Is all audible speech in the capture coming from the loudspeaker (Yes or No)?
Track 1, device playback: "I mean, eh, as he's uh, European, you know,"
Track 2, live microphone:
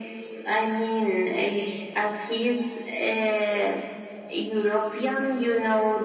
Yes